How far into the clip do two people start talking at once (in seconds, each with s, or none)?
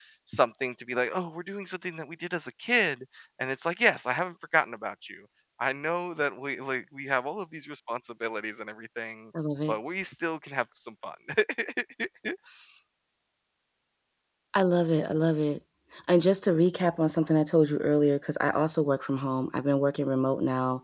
none